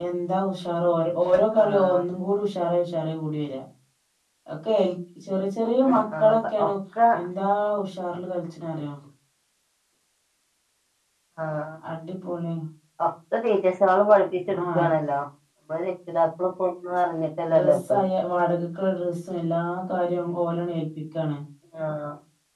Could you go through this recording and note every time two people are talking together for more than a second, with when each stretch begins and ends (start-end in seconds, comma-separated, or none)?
none